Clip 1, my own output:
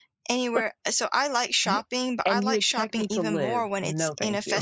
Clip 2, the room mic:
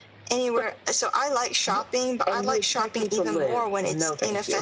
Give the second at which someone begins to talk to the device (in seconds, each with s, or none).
none